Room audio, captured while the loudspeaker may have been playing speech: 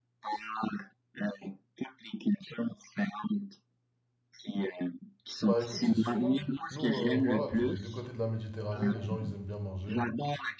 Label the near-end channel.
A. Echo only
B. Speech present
B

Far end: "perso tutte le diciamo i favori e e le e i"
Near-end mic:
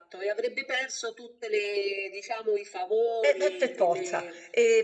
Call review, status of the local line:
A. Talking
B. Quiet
A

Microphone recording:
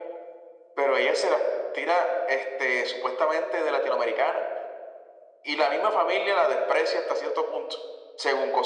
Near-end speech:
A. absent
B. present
A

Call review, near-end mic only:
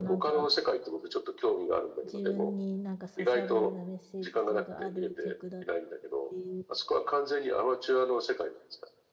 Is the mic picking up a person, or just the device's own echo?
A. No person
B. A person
B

